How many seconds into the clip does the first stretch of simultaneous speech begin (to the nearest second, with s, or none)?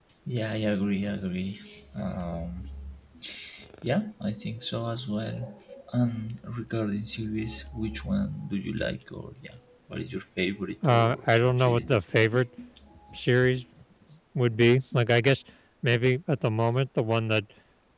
11 s